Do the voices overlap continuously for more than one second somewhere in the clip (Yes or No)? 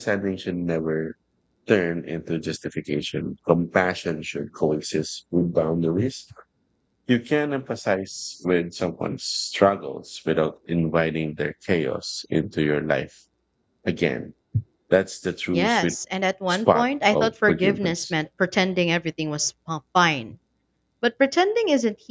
Yes